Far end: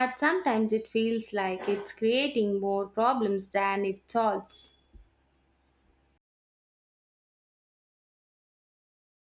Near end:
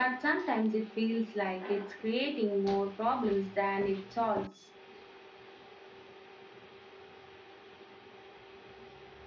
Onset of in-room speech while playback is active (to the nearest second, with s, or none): none